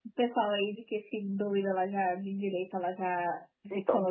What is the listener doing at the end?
taking over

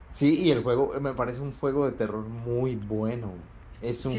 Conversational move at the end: taking over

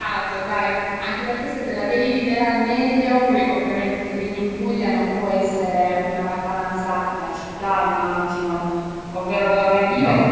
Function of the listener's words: listening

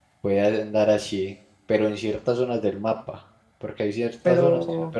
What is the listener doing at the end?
listening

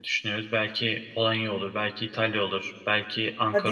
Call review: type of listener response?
taking over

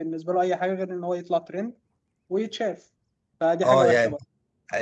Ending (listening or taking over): taking over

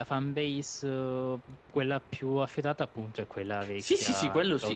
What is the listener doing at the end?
taking over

